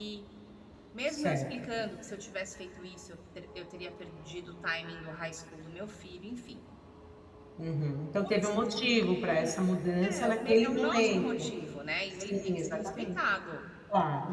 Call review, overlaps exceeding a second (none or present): present